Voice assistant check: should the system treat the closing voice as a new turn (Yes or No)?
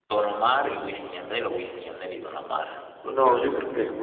Yes